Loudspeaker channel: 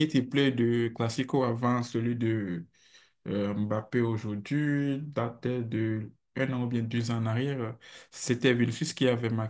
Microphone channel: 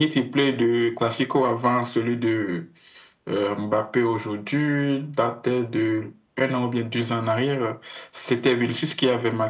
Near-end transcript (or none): none